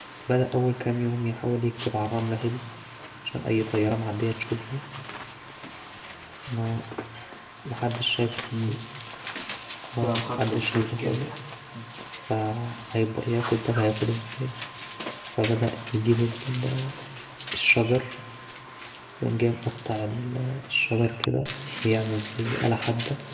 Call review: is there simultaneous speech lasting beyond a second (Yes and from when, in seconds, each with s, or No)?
Yes, from 10.0 s